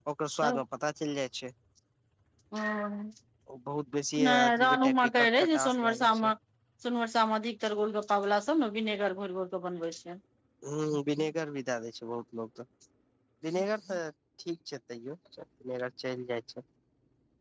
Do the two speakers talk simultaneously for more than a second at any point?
Yes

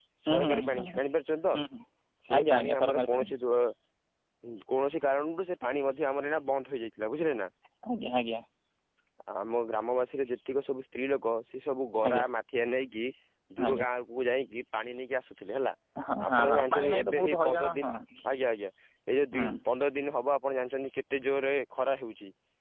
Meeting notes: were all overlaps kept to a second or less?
No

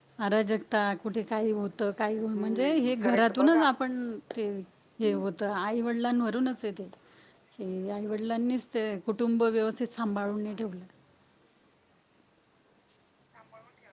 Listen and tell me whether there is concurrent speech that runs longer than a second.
Yes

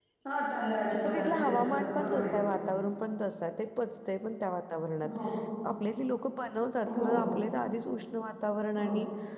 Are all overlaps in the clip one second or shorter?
No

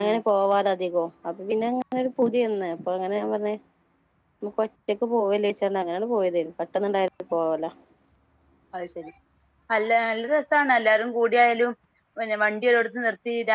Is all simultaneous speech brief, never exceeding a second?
Yes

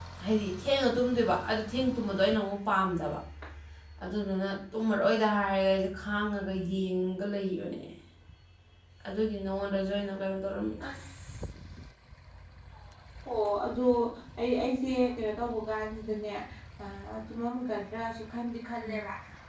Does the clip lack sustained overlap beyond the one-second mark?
Yes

